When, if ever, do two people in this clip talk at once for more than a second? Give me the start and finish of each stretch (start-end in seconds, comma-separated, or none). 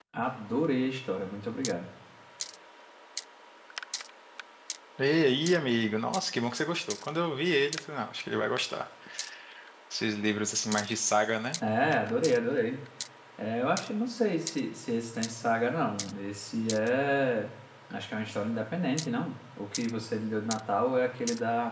none